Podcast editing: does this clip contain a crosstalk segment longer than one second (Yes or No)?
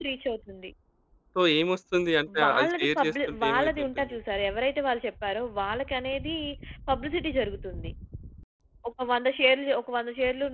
Yes